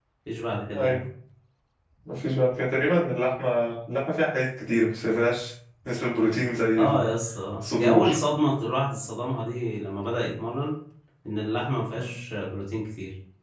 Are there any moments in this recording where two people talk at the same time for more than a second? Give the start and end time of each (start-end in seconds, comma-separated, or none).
none